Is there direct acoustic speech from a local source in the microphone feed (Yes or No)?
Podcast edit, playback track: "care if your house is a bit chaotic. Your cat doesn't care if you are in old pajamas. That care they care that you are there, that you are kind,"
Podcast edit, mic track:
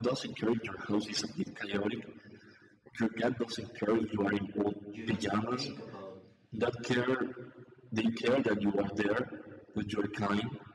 Yes